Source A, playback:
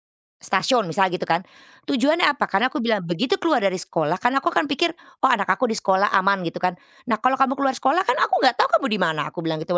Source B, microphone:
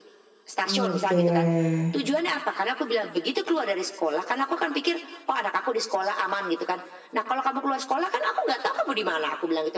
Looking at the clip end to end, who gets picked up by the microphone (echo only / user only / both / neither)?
both